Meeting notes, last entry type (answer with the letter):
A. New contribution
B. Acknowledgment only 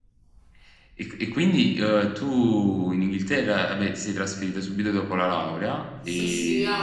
A